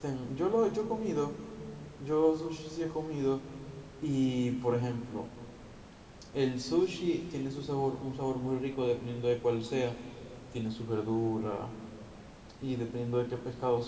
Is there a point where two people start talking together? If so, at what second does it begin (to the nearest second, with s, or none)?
none